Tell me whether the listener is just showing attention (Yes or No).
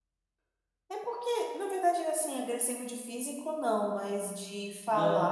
No